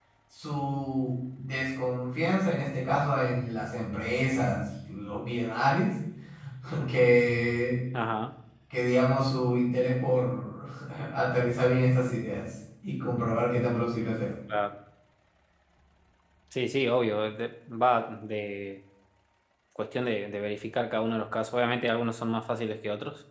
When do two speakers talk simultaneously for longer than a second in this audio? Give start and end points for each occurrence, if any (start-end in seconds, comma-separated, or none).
none